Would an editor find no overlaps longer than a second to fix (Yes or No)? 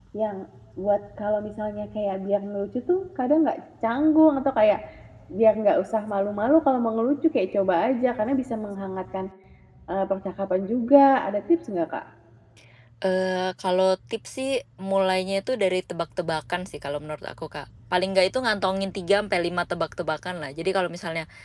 Yes